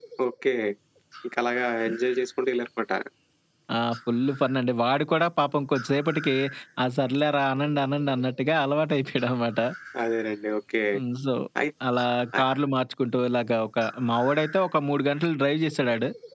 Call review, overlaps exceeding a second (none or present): none